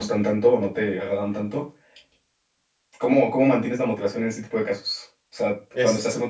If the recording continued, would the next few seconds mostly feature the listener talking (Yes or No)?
No